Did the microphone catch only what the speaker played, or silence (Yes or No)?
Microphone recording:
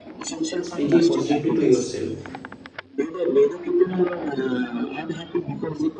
No